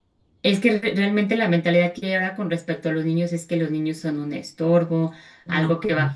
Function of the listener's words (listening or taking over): listening